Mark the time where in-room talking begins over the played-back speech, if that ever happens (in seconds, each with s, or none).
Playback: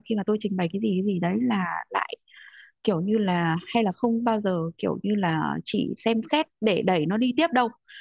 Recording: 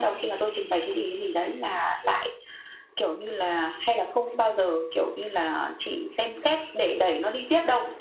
none